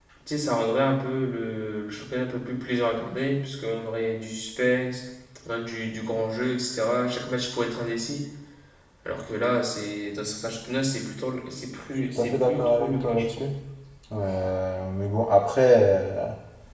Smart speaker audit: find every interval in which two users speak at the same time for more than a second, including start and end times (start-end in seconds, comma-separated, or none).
12.2-13.5